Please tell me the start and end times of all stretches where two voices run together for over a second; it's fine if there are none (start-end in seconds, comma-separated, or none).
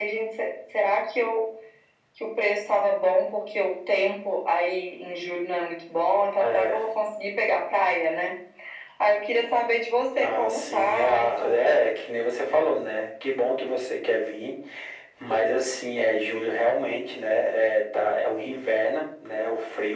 10.2-11.8